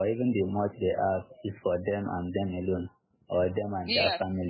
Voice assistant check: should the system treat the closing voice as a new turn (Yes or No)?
No